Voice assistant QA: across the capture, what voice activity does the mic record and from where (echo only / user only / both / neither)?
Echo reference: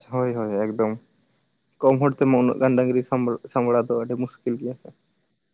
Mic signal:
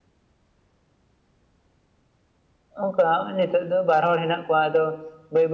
user only